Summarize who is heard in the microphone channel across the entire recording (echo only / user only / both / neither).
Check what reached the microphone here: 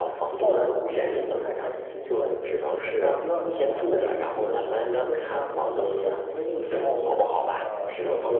both